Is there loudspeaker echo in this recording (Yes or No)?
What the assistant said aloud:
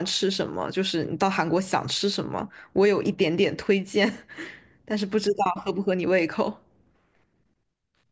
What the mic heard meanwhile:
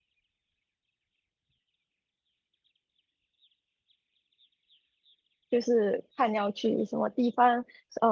No